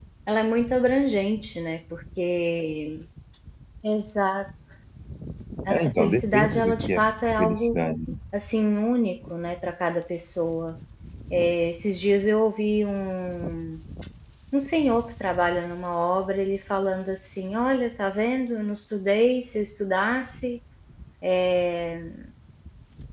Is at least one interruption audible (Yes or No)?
Yes